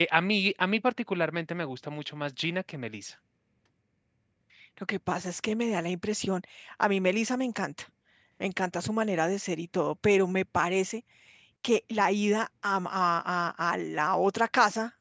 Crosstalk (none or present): none